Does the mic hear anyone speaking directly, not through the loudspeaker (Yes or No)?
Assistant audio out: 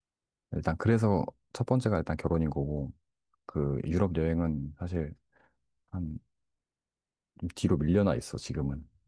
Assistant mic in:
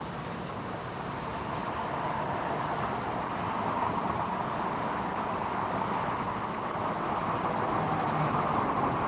No